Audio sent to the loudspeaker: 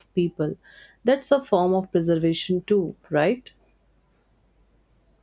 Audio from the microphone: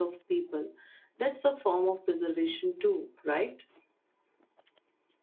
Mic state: echo only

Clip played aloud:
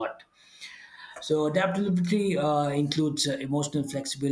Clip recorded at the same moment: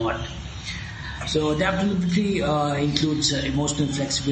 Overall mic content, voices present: echo only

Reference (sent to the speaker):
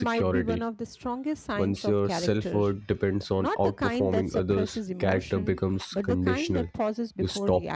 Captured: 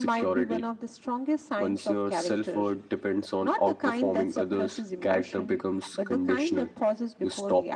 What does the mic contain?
echo only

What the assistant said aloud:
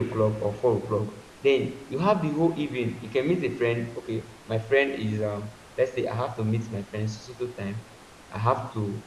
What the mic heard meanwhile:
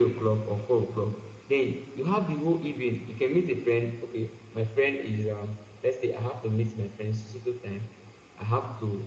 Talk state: echo only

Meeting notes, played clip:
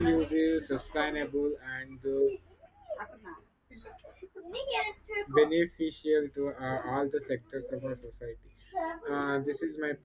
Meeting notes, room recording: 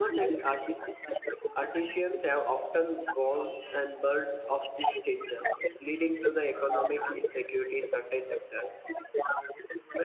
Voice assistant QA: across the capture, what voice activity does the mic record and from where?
both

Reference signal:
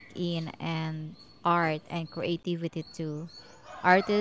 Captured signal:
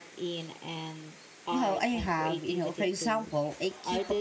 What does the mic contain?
both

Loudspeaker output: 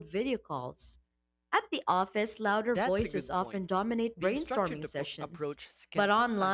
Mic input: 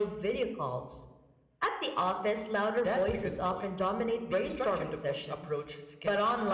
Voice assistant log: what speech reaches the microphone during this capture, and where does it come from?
echo only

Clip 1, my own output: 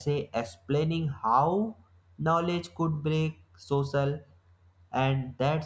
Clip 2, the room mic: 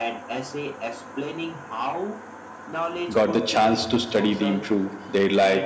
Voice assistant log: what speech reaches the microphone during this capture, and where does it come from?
both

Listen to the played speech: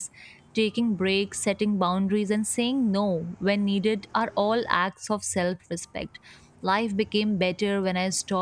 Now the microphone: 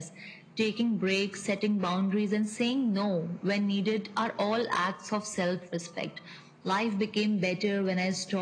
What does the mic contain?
echo only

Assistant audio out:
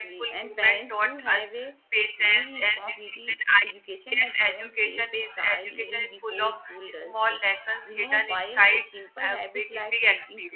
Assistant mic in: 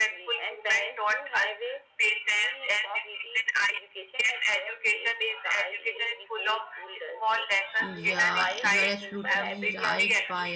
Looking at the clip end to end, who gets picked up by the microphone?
both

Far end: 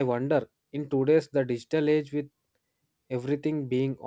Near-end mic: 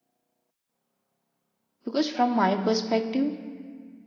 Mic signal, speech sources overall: user only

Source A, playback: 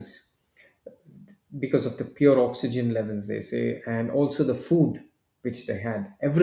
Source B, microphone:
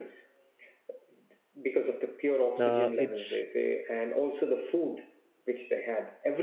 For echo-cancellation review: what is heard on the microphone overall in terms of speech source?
both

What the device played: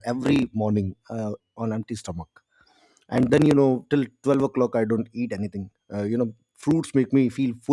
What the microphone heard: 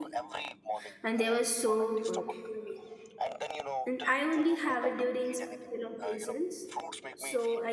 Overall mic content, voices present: both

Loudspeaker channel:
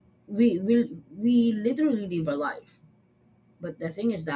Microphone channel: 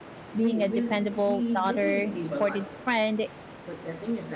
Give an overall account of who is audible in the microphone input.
both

